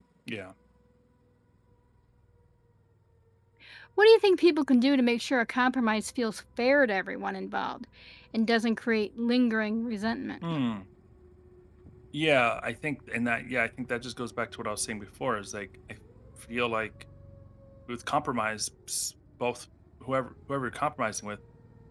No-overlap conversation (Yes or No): Yes